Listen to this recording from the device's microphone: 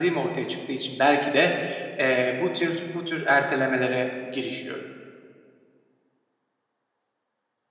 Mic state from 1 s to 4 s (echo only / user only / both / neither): echo only